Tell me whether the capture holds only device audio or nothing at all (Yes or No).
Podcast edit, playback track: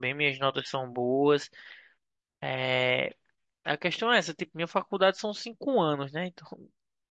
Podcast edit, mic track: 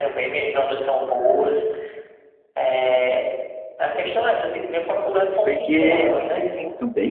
No